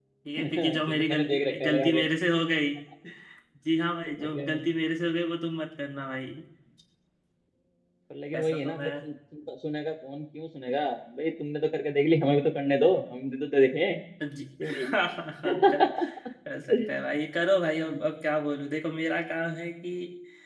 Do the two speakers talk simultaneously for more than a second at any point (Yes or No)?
Yes